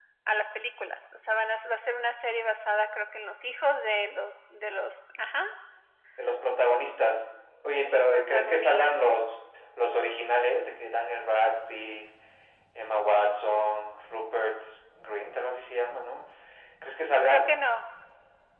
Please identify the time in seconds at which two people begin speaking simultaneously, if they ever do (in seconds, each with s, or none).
7.8 s